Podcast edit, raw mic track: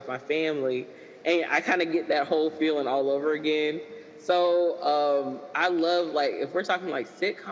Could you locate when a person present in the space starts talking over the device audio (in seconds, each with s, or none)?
none